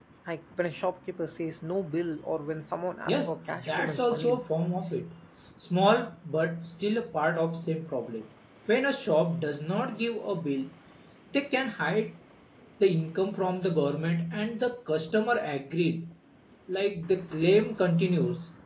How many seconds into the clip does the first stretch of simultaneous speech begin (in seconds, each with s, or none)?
3.1 s